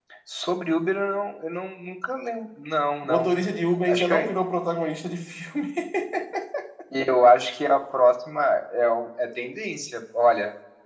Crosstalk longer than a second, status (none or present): none